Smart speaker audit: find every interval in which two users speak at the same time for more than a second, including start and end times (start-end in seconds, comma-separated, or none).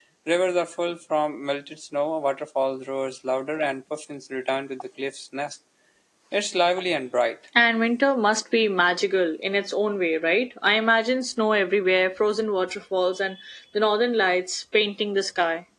none